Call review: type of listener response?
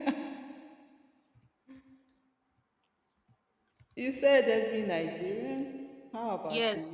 taking over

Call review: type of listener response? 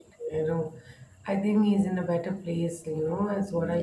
listening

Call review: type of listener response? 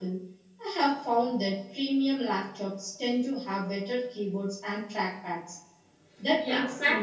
taking over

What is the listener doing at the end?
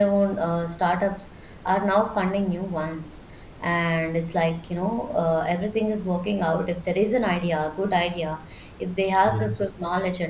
listening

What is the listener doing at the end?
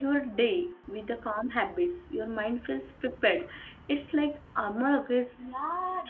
taking over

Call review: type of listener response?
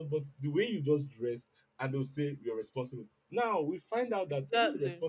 listening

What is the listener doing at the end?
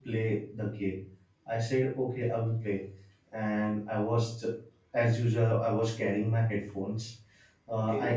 listening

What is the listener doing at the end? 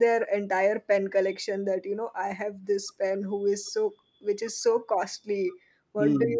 listening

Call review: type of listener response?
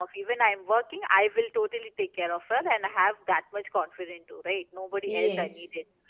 listening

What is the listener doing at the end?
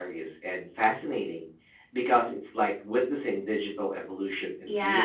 taking over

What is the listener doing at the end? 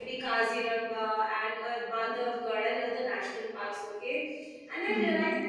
listening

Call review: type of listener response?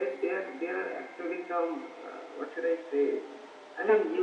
listening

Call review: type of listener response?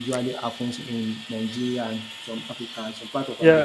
taking over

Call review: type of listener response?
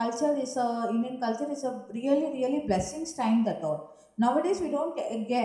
listening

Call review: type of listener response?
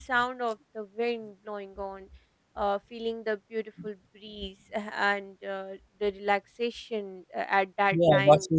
taking over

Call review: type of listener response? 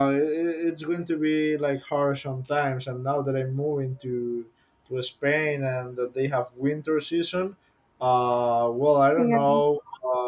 listening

